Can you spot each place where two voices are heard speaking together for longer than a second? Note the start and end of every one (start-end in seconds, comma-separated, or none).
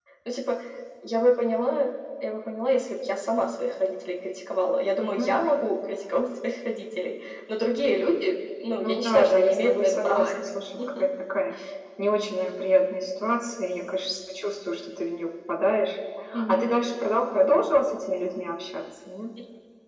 8.8-10.3